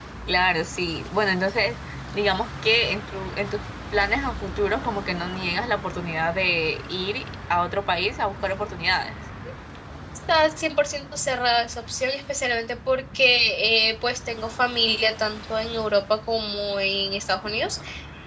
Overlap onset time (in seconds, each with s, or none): none